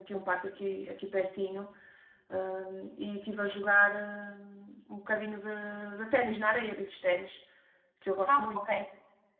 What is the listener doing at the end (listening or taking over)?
taking over